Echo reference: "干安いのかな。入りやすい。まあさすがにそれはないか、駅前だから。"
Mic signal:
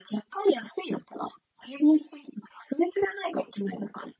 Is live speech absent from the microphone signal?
Yes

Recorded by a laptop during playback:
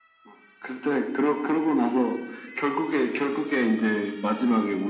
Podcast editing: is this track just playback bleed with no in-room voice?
Yes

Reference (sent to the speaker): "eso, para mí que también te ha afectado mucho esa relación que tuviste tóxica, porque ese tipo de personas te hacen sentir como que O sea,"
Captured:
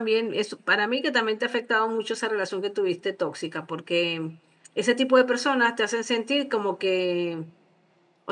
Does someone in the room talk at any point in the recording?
No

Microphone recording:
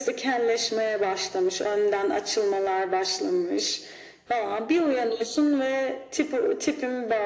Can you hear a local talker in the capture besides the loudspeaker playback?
No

